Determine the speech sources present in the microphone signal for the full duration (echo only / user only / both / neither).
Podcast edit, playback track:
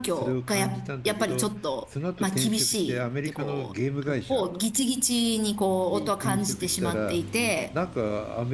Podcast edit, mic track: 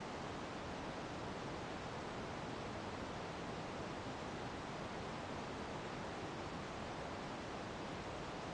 neither